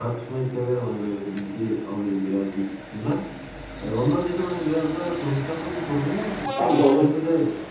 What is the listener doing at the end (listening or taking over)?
listening